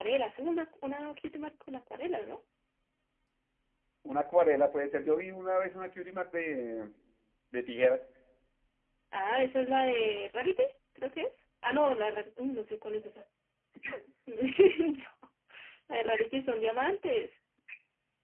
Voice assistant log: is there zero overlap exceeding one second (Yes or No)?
Yes